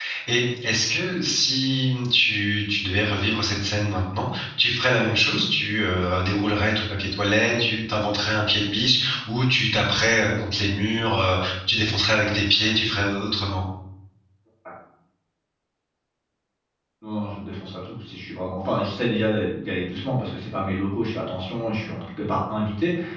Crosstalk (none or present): none